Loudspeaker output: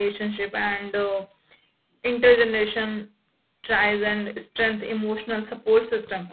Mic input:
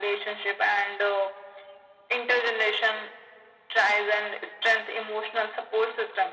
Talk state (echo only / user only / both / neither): echo only